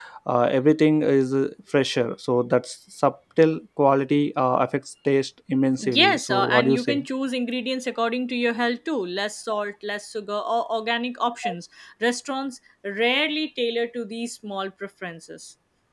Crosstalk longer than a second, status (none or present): present